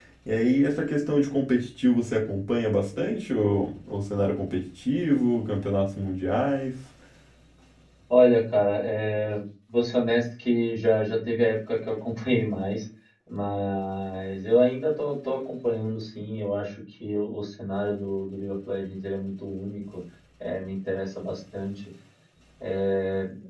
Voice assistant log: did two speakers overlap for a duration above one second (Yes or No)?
No